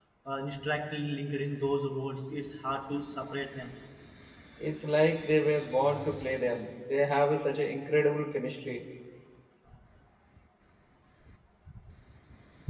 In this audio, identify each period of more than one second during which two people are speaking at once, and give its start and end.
none

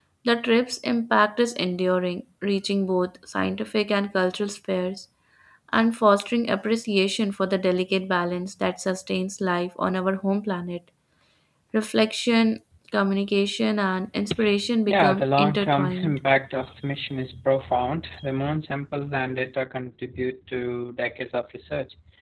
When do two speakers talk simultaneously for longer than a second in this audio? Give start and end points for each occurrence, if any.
14.9-16.2

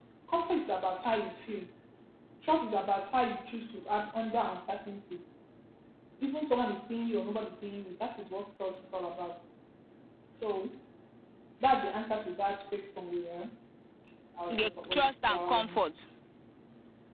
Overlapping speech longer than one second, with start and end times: 14.5-15.8

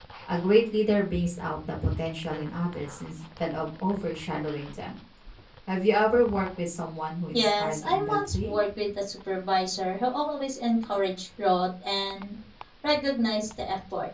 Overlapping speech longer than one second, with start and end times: 7.3-8.6

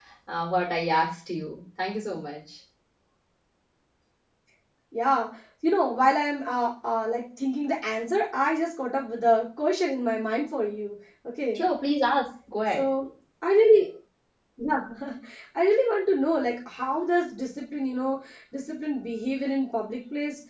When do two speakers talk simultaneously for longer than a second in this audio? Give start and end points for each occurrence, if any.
none

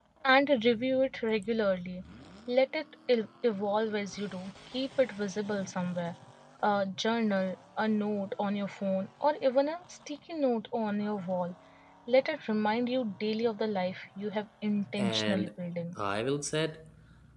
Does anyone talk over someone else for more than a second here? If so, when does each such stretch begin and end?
none

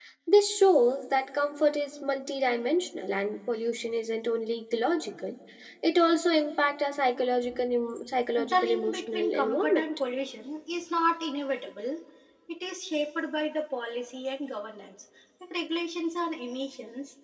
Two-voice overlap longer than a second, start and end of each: 8.4-9.8

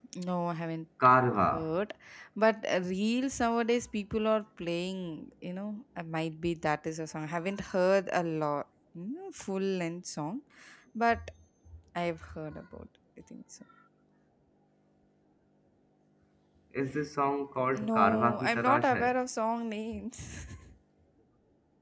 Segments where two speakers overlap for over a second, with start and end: 17.8-19.1

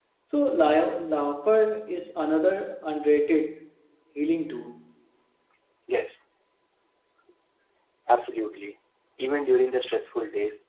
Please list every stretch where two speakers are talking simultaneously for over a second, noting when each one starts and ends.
none

